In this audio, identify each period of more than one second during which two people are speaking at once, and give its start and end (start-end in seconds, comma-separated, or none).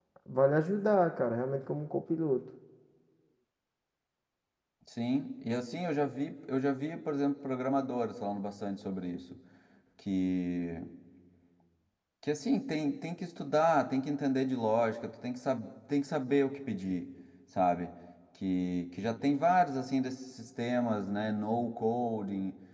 none